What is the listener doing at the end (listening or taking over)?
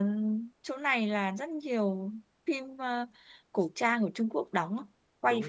taking over